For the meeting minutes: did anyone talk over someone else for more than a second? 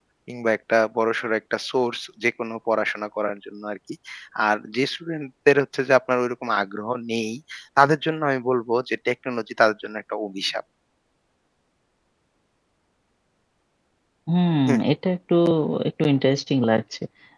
No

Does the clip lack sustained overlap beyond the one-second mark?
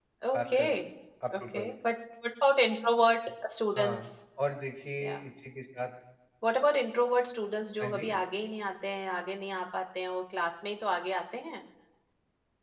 Yes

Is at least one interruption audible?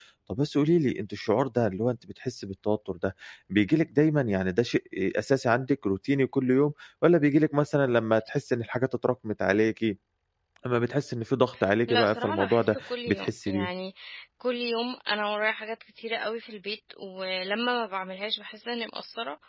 Yes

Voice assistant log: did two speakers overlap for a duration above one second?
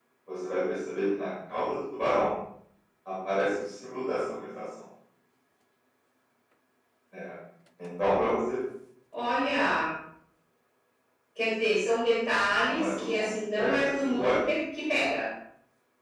Yes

